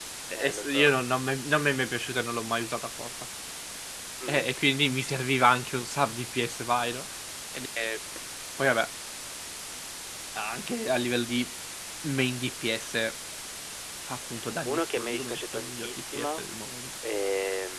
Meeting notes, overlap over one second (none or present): present